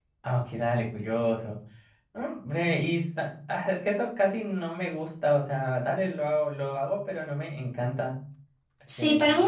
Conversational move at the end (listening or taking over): taking over